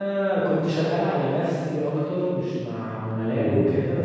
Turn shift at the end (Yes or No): Yes